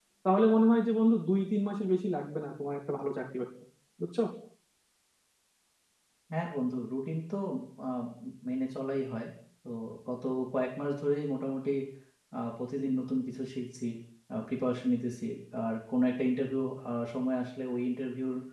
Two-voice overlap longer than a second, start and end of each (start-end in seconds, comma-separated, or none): none